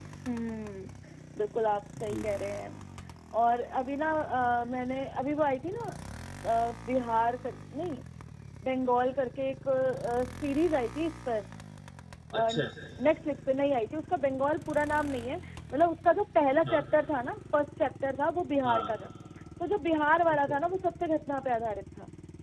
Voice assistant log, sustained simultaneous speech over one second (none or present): none